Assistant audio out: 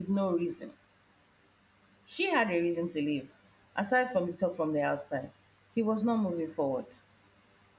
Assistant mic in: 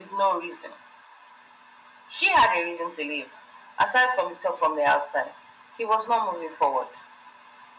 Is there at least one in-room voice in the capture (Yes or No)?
No